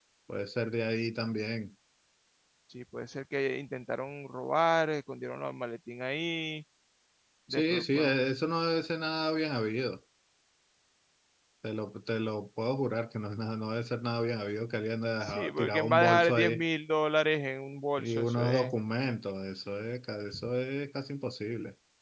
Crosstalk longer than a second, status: present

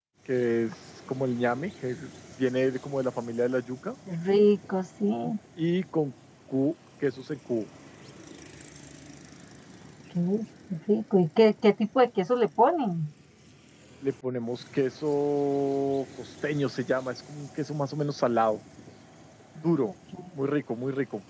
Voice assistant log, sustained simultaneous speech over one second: none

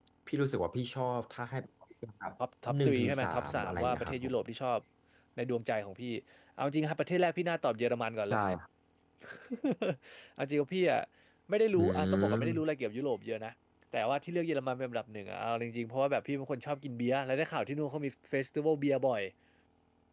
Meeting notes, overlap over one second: present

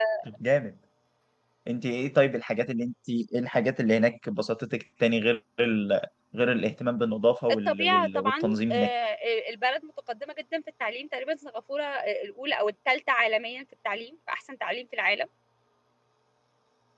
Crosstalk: present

